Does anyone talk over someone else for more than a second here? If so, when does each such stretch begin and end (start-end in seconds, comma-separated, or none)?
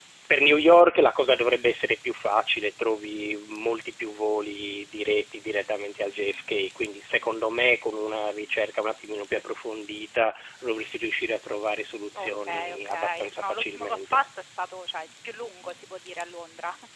12.2-14.2